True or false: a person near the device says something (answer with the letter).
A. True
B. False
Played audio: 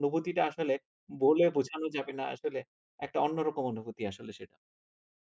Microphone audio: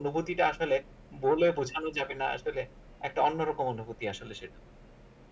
B